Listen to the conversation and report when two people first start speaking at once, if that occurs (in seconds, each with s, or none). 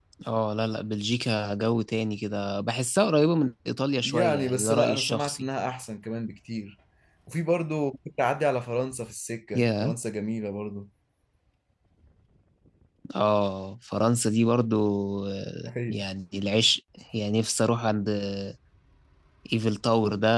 4.0 s